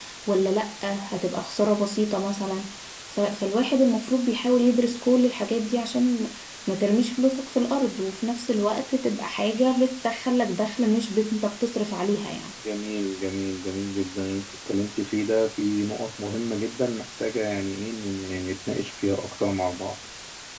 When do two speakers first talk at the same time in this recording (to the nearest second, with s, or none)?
none